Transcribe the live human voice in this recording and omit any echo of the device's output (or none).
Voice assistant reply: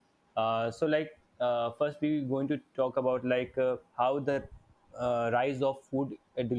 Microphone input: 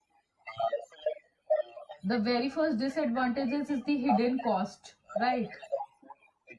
the very first disadvantages is the hidden cost right